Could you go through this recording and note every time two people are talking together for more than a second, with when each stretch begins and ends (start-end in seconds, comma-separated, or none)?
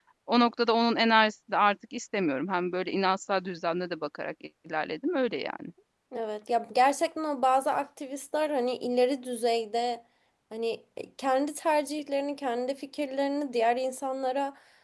none